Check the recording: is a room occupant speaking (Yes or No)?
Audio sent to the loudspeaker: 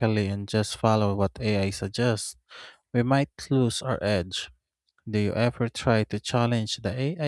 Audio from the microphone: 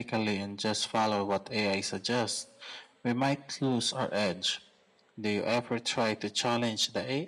No